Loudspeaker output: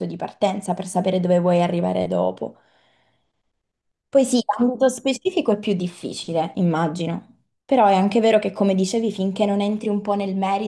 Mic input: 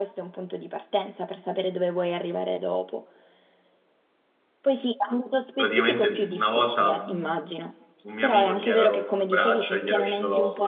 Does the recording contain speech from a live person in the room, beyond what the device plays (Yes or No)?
Yes